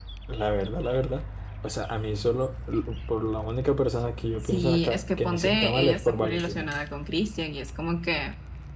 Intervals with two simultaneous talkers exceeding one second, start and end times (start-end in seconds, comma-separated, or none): 4.4-6.7